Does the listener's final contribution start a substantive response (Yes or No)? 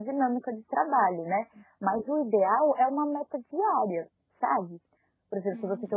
No